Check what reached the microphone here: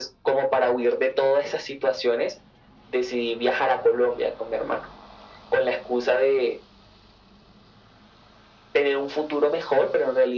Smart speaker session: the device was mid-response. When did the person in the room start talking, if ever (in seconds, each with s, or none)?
none